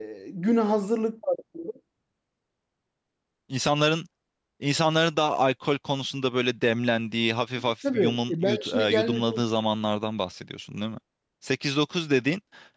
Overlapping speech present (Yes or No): Yes